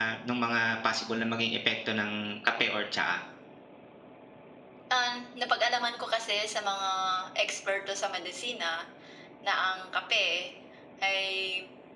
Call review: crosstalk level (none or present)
none